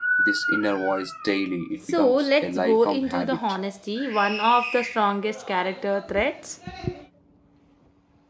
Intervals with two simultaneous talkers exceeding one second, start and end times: 1.9-3.6

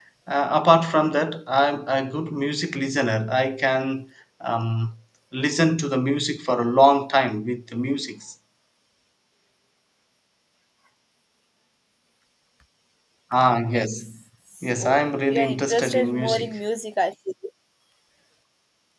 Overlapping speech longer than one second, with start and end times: 14.8-16.5

